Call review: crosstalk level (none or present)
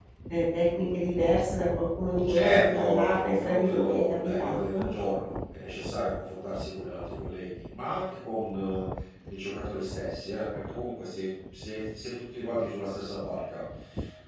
present